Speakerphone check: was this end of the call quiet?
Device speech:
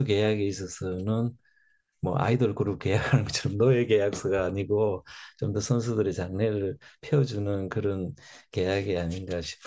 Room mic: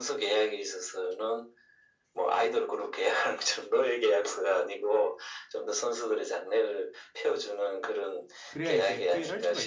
No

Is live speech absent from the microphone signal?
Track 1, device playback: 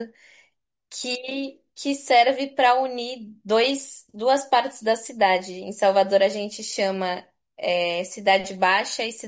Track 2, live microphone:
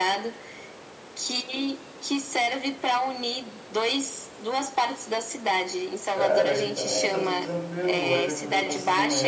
No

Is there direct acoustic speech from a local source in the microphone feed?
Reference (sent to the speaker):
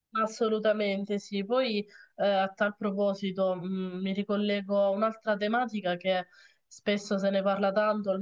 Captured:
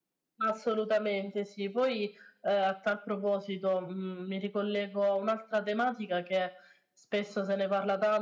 No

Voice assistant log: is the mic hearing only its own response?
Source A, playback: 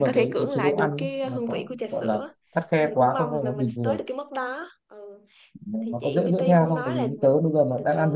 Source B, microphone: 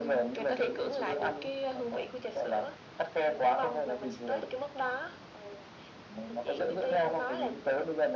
Yes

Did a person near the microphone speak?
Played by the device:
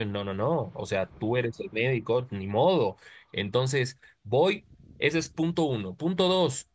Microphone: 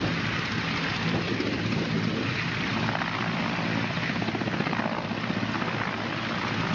No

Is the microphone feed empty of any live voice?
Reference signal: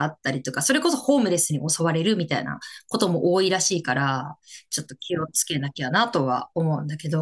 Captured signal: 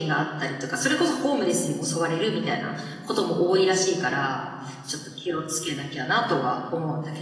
Yes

